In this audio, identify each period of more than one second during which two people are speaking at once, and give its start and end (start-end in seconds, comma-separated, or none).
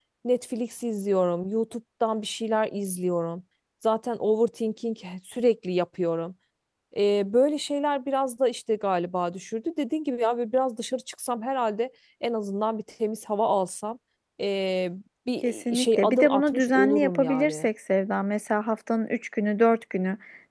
15.4-17.7